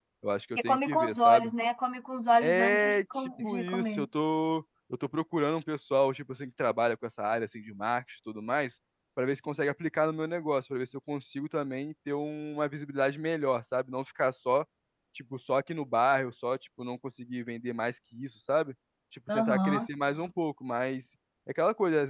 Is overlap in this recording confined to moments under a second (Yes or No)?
No